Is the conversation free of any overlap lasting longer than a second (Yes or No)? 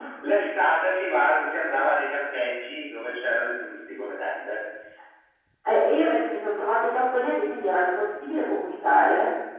Yes